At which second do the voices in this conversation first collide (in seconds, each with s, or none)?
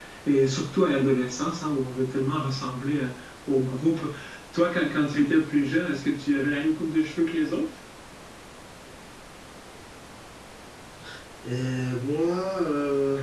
none